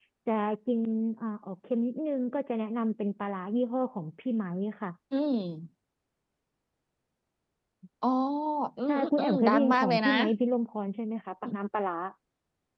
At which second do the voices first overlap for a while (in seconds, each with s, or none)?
8.8 s